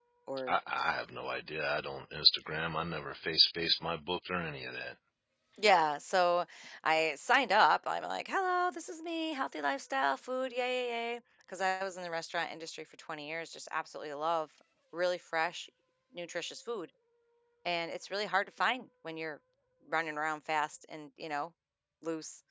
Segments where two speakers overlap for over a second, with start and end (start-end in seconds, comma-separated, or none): none